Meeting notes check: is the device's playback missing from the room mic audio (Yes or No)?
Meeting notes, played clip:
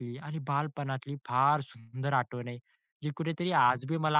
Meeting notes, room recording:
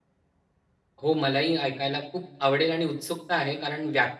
Yes